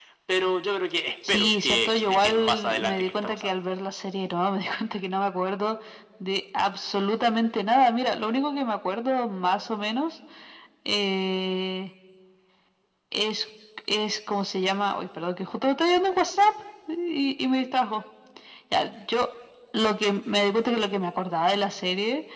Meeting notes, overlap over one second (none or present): present